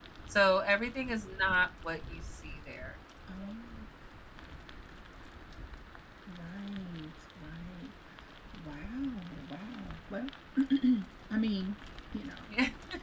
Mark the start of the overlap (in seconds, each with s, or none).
none